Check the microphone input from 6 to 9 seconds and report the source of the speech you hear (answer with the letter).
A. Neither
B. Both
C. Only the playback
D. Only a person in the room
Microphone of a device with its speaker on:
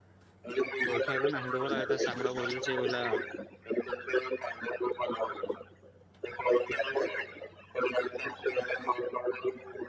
C